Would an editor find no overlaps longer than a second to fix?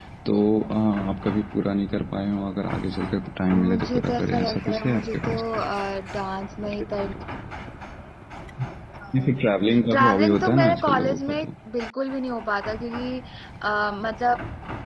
No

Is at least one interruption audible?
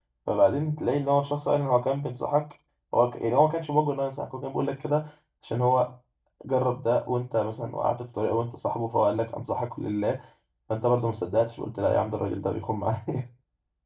No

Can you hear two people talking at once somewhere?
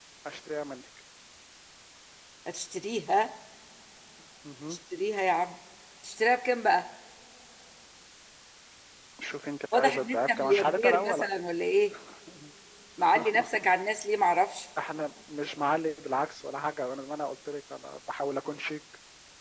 Yes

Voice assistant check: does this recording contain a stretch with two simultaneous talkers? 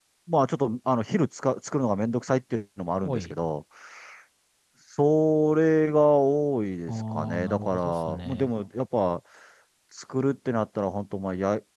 Yes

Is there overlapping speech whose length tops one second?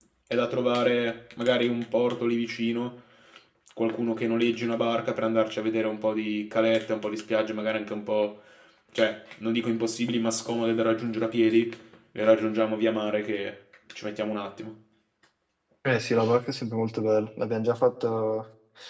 No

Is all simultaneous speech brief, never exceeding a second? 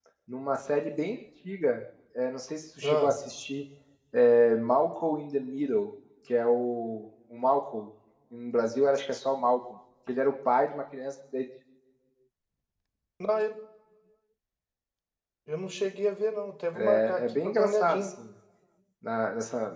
No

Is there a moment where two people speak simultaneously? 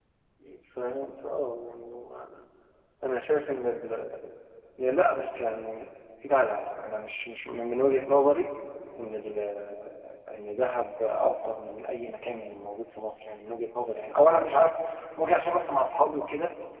No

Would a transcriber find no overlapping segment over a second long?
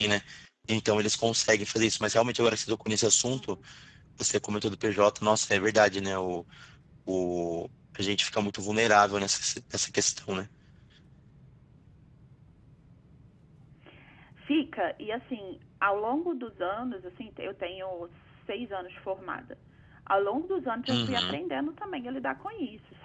Yes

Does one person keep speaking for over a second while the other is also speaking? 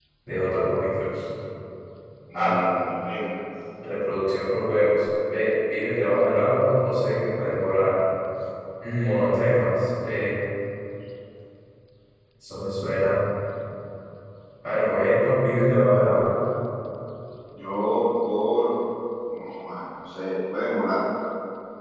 No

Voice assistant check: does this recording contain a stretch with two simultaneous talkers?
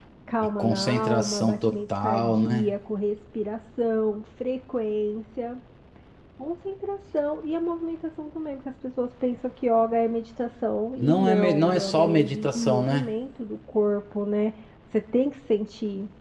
Yes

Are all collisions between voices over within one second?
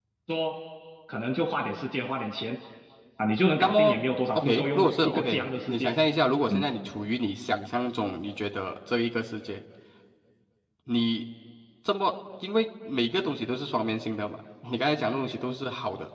No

